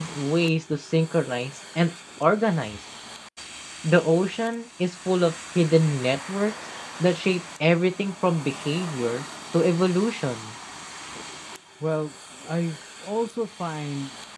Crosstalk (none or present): none